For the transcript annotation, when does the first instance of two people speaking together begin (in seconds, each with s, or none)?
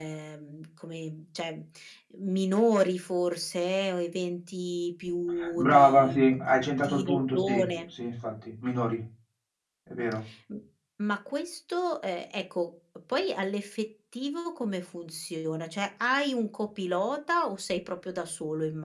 5.6 s